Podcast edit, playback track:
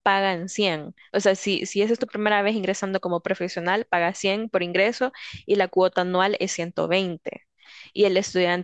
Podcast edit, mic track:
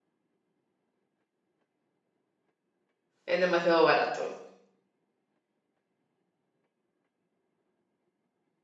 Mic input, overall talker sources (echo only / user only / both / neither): user only